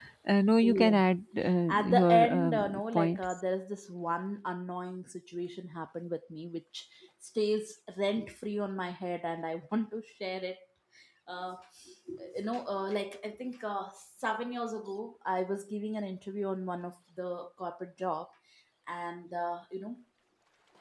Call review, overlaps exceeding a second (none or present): present